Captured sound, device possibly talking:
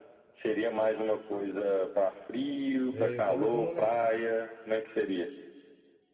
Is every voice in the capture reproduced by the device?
No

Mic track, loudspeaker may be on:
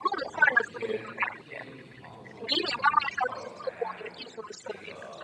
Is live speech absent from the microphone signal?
No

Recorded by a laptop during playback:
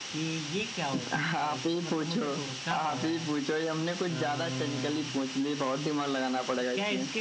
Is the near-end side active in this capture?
No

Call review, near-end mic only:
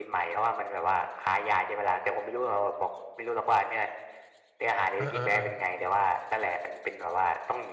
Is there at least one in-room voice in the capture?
Yes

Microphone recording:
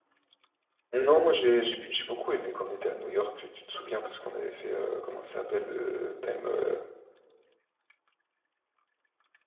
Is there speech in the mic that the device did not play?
Yes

